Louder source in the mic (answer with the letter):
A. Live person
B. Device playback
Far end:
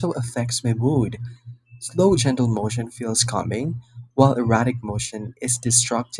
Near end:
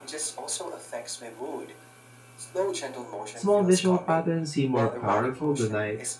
A